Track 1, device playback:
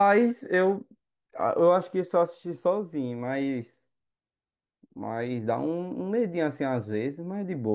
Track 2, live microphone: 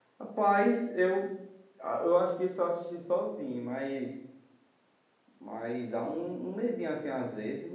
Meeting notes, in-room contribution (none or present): none